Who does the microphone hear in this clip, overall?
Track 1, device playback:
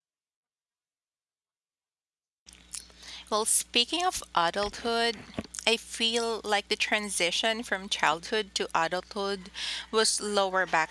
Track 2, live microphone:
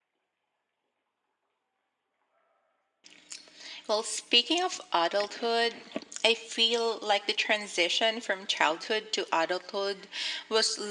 echo only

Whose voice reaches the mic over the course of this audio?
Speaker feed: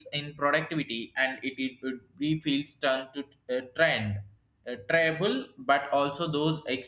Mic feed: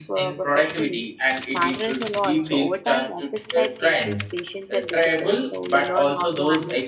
both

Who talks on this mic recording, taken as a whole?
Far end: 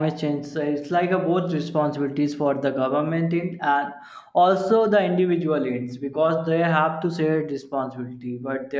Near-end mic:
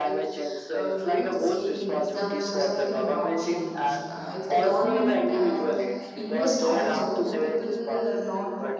both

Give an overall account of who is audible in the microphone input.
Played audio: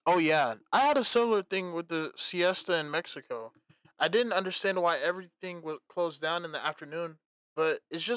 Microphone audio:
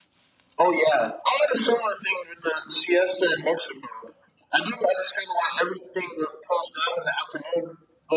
echo only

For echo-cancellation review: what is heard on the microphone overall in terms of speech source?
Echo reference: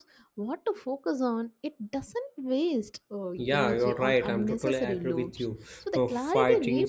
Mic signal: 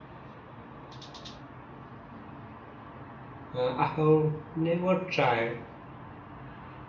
user only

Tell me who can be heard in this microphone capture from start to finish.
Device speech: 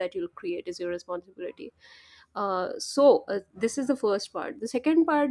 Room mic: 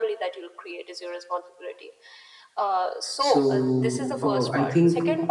both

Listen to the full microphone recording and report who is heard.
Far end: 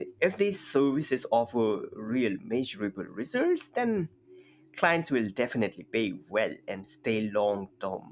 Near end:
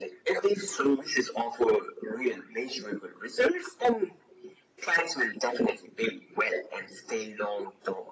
echo only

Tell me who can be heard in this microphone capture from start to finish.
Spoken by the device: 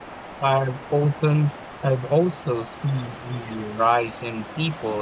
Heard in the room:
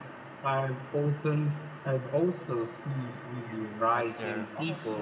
both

